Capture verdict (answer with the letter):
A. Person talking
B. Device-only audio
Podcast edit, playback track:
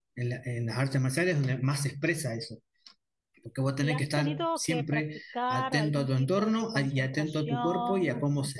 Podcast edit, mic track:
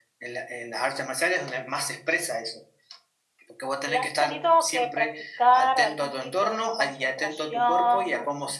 B